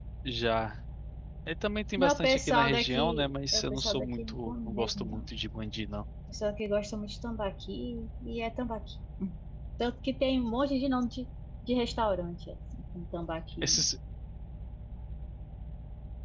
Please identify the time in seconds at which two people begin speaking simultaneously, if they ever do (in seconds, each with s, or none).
2.0 s